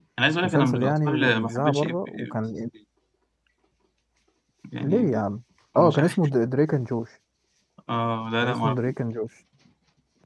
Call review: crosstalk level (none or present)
present